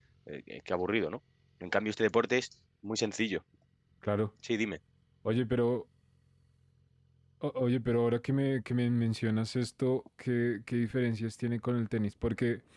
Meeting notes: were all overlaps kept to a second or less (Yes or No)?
Yes